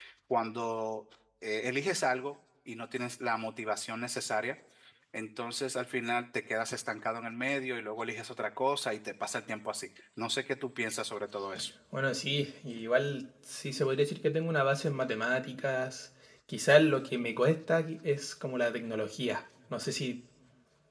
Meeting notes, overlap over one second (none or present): none